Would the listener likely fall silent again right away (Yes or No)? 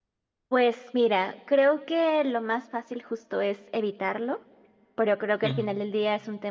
Yes